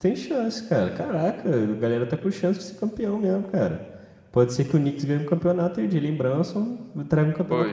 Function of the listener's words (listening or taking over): taking over